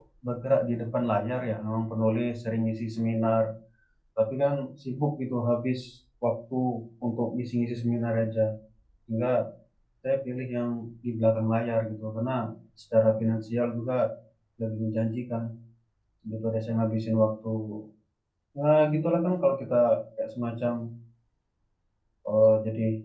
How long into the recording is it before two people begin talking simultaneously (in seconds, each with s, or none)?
none